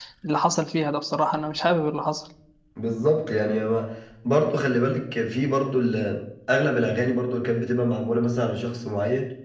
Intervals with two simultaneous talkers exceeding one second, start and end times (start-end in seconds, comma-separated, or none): none